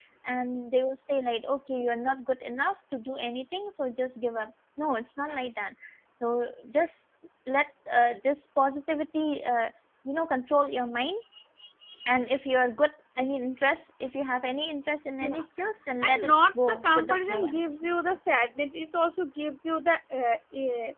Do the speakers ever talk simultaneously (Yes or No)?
Yes